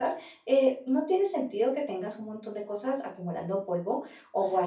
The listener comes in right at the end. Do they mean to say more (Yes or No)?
No